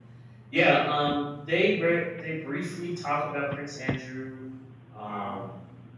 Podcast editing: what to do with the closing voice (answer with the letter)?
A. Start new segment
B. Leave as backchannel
B